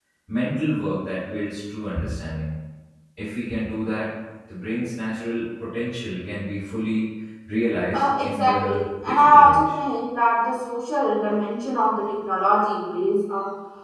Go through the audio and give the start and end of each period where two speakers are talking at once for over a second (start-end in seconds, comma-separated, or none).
7.9-9.8